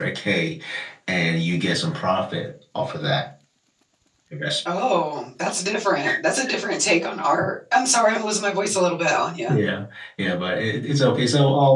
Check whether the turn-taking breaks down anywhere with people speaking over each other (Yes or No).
No